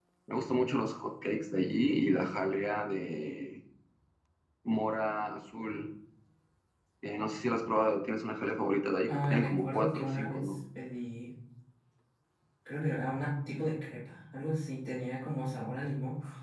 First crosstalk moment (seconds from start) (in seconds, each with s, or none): 9.1 s